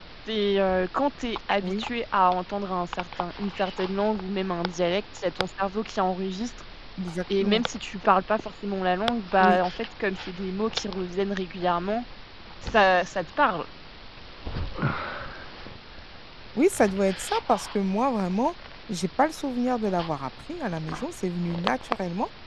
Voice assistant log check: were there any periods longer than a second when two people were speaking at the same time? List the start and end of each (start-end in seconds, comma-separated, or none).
none